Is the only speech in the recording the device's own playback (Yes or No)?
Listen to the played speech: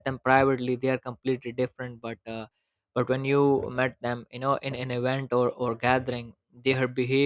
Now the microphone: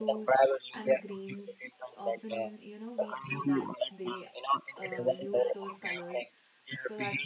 No